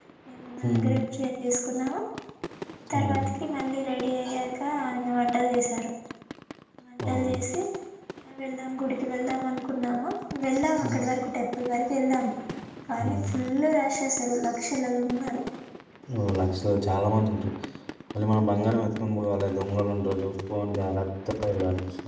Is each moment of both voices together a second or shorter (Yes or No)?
Yes